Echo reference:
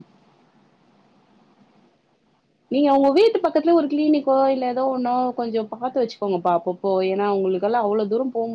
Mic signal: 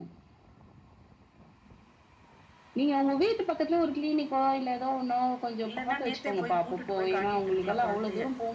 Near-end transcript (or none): இல்லன்னா நேத்தே போய் கூட்டுட்டு போய் காட்டிட்டு இரு இருக்கலா கொழந்தய